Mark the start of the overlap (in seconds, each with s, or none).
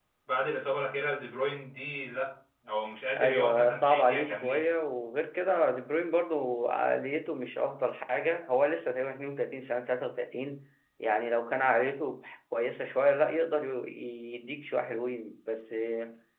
3.2 s